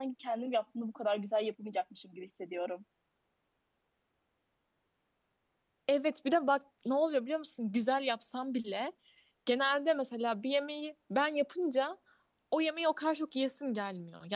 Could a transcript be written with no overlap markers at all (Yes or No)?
Yes